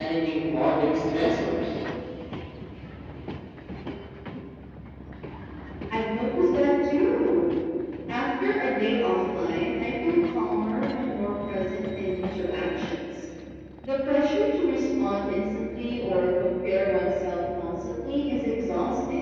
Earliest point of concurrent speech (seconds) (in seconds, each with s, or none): none